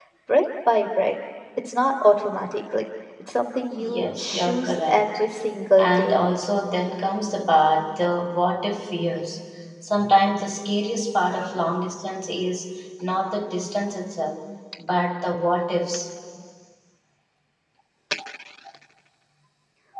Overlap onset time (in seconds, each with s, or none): 3.8 s